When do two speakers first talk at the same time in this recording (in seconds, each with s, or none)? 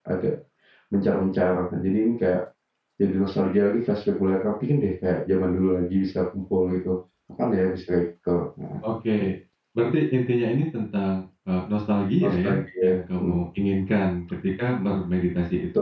12.2 s